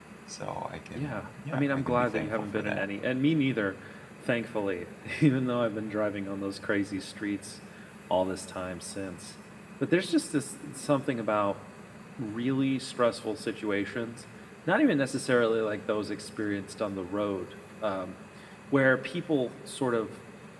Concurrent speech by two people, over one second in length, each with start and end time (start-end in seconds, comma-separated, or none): 0.9-2.8